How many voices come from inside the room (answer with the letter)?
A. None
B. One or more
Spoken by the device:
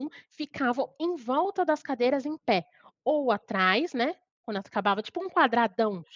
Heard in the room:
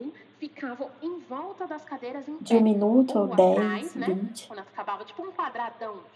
B